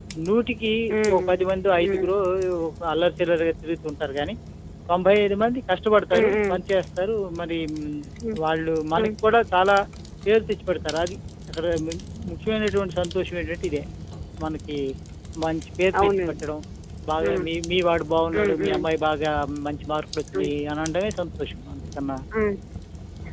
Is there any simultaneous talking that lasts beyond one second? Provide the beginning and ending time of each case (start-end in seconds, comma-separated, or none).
none